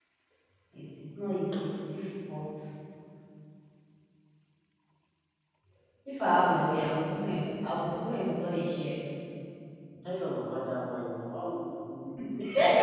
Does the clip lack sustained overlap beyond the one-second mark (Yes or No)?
Yes